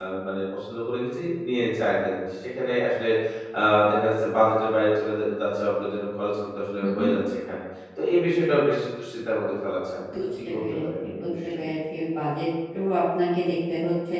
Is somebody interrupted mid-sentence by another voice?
Yes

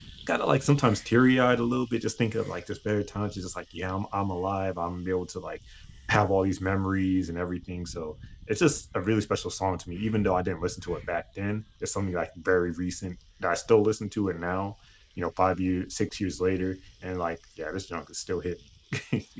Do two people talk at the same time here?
No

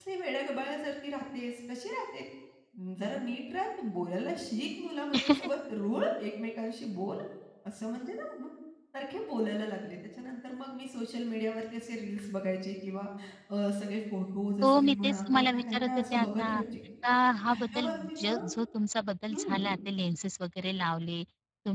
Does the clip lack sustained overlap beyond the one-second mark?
No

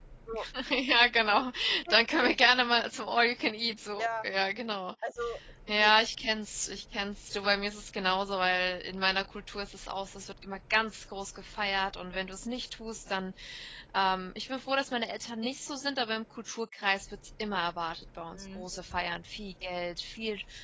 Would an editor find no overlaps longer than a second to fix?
Yes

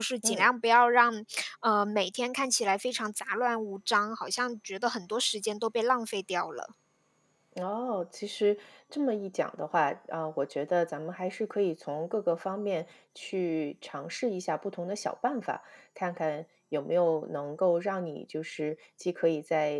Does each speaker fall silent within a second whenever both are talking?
Yes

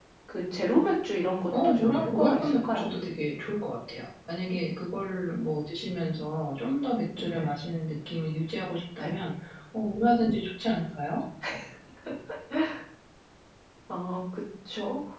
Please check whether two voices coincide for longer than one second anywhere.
Yes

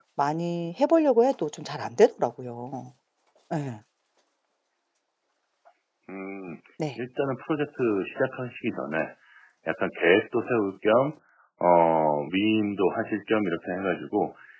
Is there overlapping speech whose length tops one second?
No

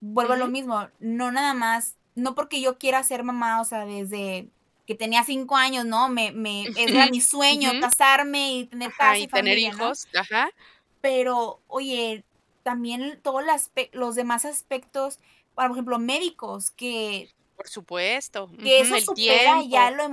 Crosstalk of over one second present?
Yes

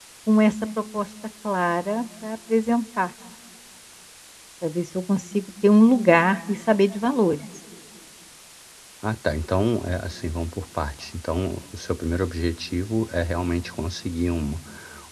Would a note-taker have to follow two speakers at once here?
No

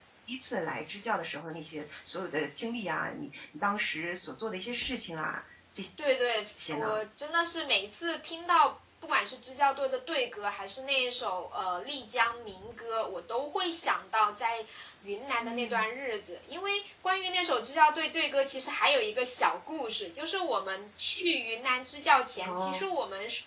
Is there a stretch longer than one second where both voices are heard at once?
No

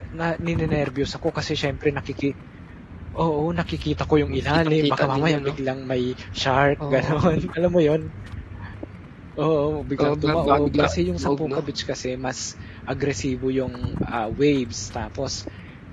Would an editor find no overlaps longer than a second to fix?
No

